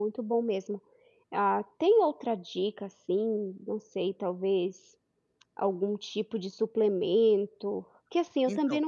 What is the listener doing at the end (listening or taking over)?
listening